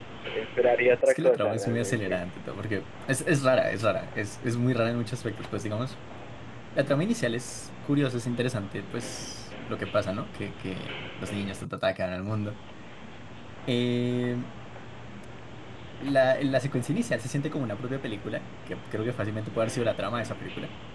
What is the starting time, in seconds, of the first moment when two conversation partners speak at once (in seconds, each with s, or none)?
0.9 s